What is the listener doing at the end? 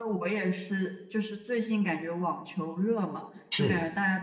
listening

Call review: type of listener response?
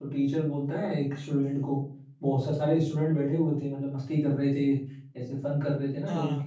listening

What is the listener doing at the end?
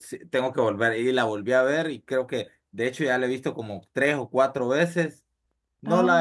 listening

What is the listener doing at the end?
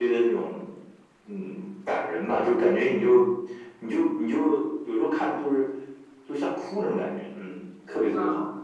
taking over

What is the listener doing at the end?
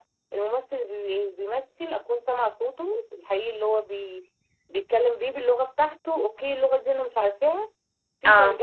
listening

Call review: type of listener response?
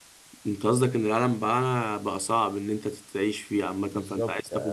taking over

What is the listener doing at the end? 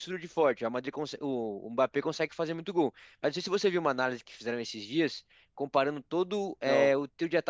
listening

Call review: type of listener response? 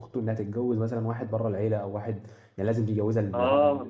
taking over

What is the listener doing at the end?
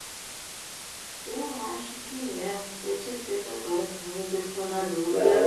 taking over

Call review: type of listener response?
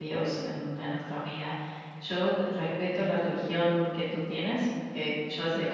listening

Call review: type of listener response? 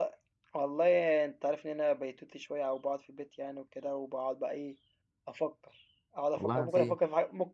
listening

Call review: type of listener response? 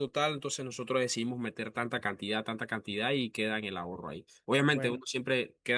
listening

